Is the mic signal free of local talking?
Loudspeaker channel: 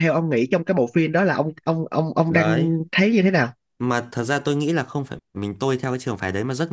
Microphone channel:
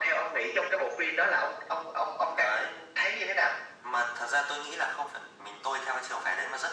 Yes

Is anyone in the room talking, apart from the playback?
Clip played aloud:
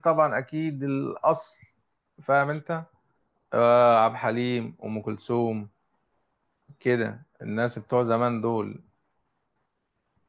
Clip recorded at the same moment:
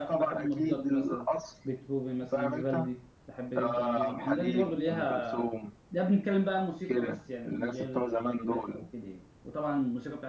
Yes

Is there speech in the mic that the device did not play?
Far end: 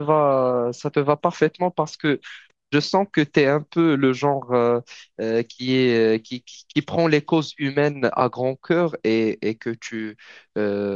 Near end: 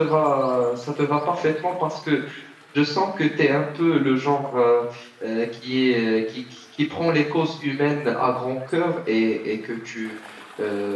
No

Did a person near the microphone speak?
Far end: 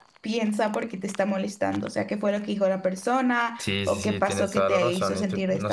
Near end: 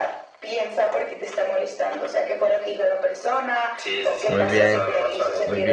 Yes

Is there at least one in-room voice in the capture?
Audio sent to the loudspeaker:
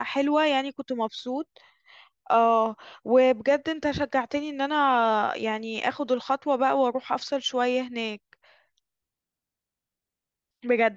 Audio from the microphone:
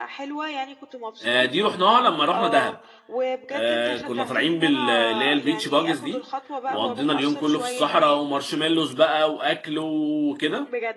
Yes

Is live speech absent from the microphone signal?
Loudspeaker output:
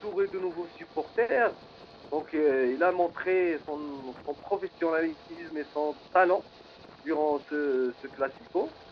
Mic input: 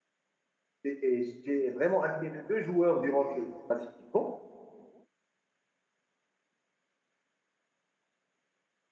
No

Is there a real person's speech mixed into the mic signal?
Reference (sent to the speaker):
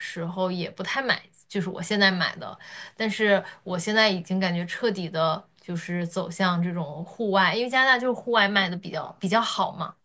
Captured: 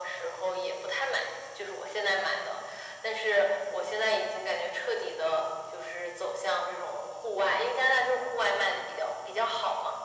No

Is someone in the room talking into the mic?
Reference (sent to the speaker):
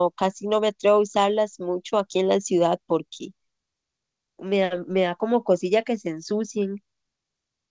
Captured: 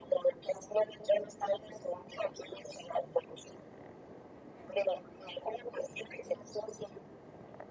No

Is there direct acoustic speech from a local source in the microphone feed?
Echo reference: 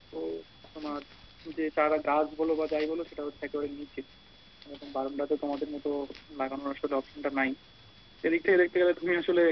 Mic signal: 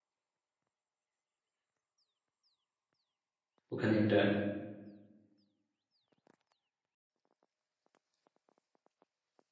Yes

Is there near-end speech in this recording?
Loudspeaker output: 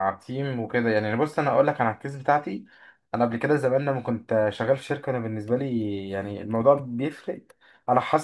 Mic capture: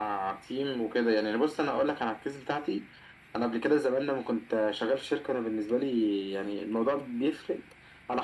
No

